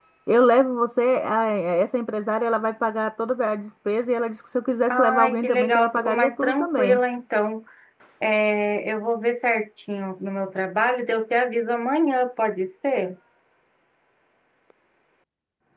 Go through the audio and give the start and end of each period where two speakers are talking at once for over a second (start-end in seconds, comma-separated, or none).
4.9-7.0